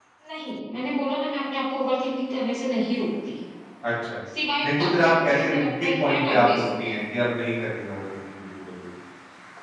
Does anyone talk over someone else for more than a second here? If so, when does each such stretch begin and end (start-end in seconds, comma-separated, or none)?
4.6-6.9